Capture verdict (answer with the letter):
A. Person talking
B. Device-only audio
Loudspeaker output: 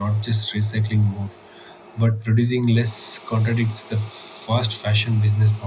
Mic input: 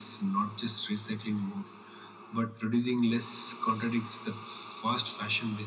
B